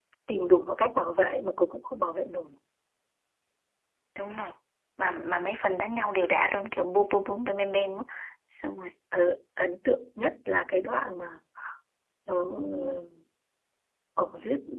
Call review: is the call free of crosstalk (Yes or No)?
Yes